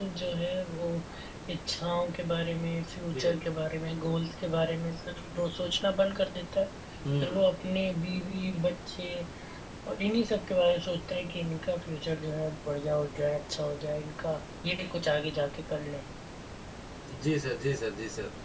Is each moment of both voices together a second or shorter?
Yes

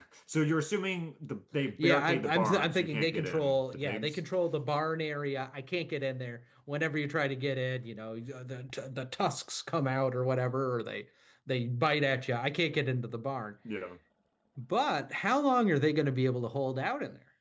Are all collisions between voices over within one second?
No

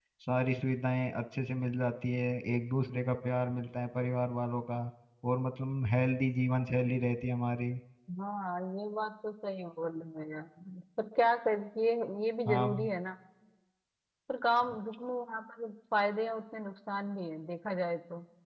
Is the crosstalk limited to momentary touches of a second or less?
Yes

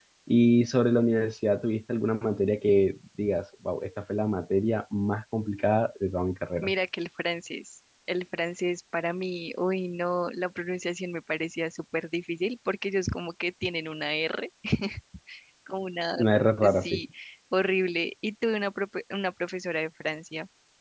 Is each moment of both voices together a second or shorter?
Yes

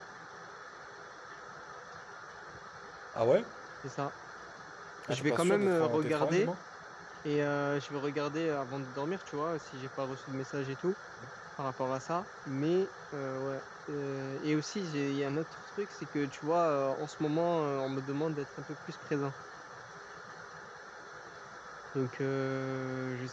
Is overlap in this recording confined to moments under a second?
No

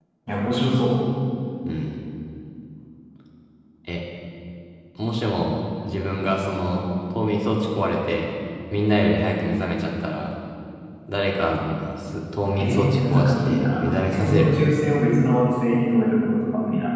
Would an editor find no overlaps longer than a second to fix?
No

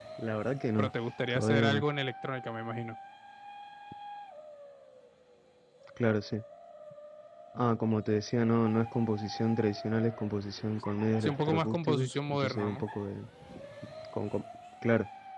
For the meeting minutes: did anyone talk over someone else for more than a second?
Yes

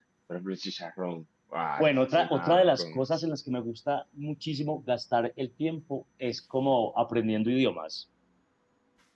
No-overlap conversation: No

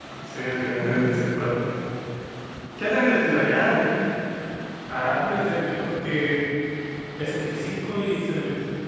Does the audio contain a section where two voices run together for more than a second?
No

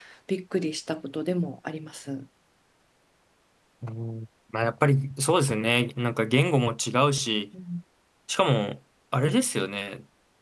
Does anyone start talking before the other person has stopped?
No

